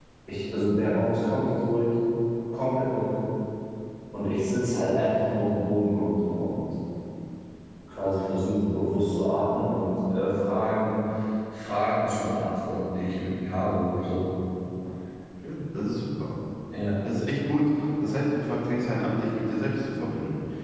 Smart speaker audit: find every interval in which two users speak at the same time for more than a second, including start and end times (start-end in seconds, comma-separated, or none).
none